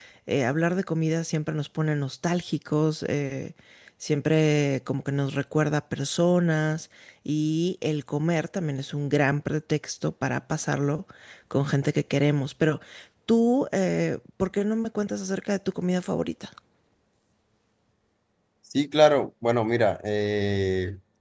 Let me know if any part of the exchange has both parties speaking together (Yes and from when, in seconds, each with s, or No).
No